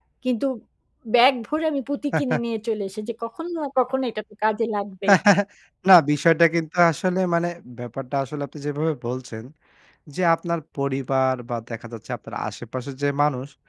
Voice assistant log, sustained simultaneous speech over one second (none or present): none